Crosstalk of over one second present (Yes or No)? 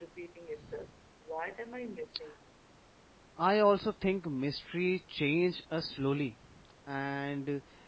No